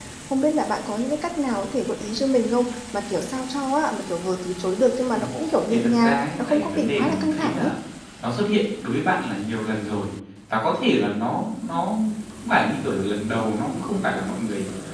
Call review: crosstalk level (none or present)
present